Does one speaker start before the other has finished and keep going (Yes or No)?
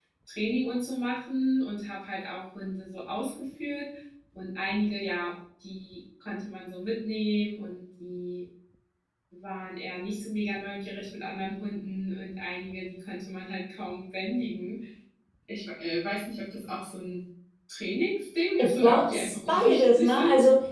Yes